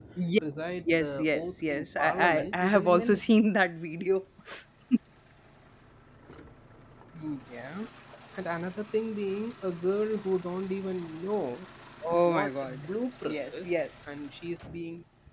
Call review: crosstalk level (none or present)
present